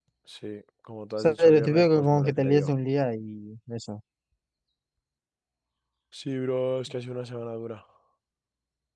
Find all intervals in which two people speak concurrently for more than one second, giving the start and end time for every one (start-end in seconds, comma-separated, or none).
1.2-2.7